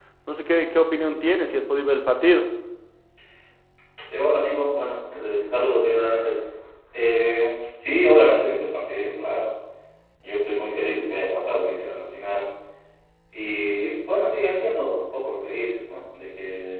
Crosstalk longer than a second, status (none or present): none